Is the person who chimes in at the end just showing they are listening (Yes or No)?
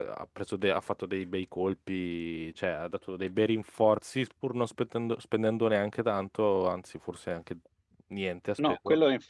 No